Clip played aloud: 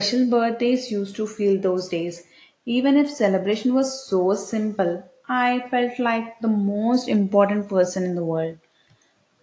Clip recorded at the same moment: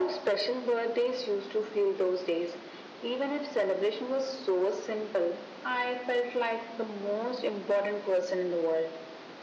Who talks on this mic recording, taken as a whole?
echo only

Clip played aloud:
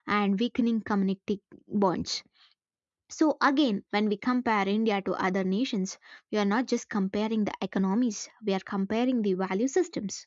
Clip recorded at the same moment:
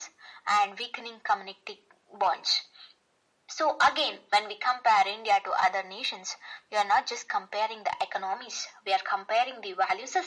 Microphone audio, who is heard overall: echo only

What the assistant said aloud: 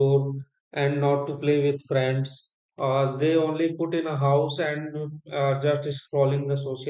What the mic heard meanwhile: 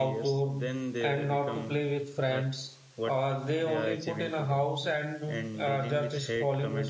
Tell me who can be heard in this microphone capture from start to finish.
both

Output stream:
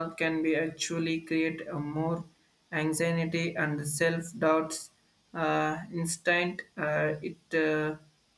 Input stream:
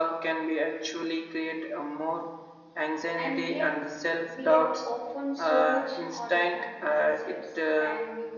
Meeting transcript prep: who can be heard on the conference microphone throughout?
both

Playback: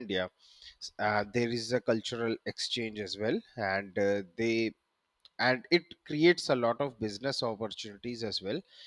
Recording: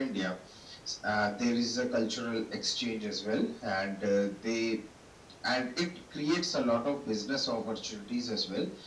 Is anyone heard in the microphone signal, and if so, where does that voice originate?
echo only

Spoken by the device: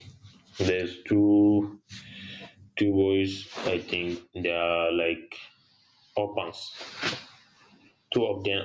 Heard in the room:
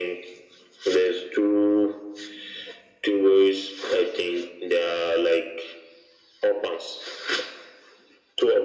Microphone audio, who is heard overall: echo only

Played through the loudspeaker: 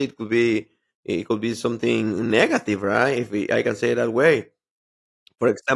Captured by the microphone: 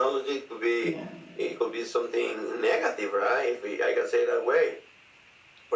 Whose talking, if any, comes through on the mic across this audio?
both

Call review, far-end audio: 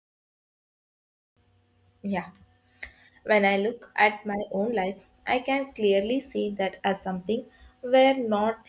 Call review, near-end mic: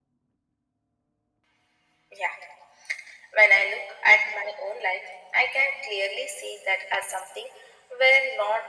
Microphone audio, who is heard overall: echo only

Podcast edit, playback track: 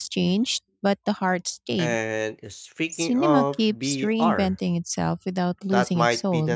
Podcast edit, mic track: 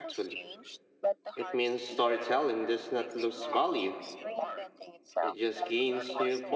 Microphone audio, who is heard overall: both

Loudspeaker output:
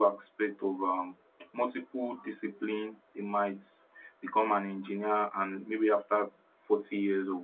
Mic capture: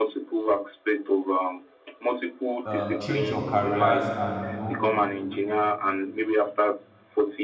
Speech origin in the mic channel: both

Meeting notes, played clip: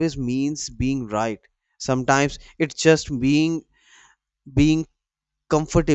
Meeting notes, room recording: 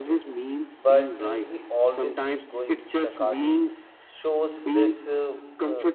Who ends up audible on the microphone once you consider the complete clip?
both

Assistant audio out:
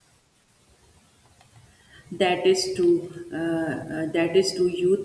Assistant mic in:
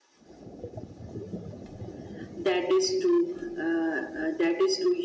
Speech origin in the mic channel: echo only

